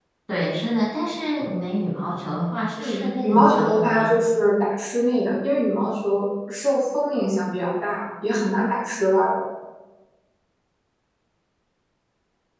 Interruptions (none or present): present